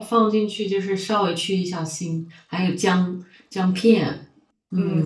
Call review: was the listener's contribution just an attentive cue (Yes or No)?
No